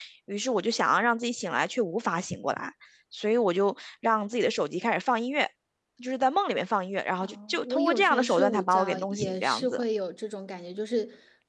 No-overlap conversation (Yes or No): No